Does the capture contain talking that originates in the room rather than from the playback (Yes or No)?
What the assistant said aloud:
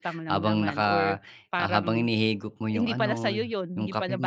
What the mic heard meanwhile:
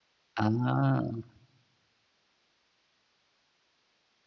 Yes